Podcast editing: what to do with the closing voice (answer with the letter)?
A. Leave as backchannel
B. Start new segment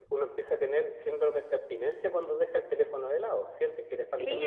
B